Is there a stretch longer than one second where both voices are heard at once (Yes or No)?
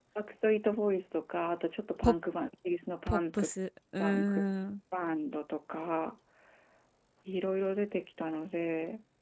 No